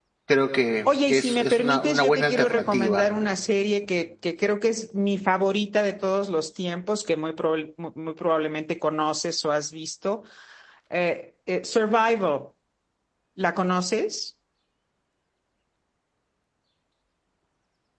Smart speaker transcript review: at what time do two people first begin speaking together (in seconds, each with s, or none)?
1.1 s